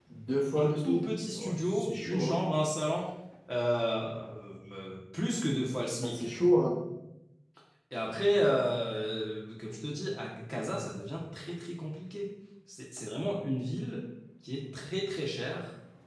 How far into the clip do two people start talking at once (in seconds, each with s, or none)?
0.5 s